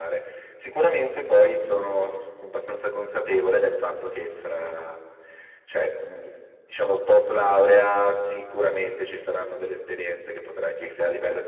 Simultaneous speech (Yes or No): No